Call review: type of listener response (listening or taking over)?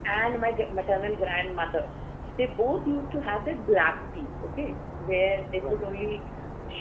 listening